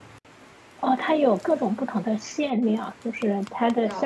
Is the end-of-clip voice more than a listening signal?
No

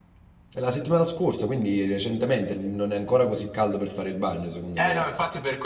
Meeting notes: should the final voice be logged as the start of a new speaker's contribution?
Yes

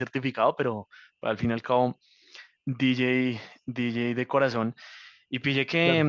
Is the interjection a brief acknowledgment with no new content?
Yes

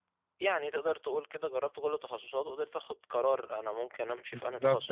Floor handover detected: Yes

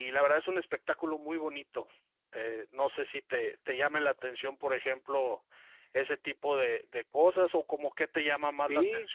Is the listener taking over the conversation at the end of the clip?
Yes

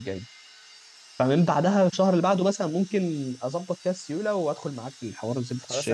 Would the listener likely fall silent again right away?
No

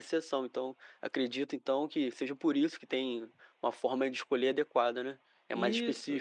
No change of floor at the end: No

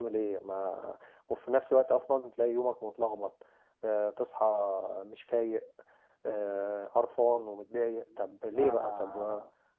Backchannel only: No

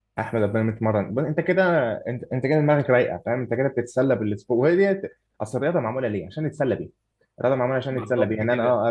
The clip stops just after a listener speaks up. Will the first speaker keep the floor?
Yes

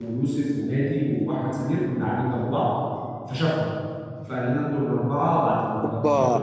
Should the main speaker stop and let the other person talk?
Yes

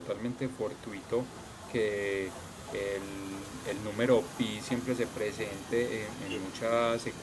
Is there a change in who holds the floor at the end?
No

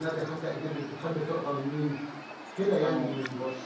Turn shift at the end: Yes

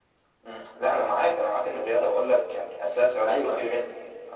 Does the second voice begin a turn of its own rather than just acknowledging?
No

